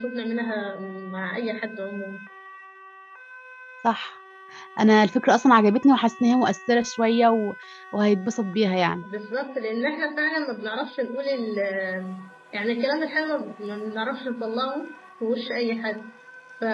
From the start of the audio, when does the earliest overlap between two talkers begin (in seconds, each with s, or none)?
none